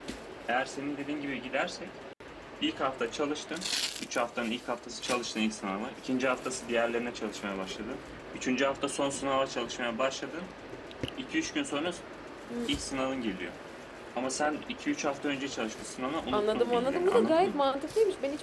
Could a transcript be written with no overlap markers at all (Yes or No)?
No